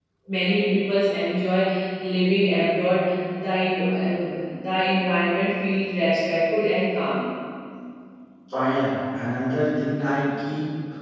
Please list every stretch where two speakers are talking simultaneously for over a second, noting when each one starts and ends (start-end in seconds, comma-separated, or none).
none